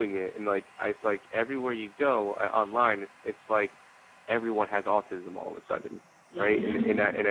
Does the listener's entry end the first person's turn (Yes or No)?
No